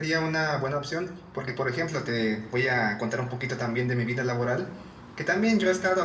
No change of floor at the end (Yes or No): Yes